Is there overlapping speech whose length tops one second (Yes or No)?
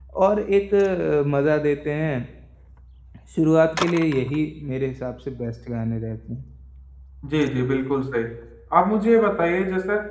No